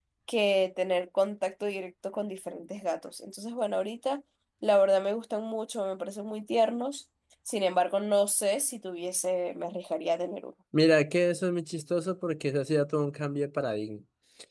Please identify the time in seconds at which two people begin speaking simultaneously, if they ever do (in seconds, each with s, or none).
none